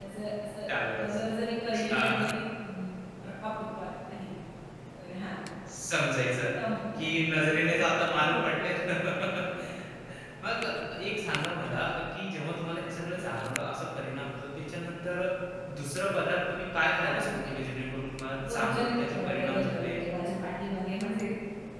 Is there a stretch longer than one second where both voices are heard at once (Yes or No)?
Yes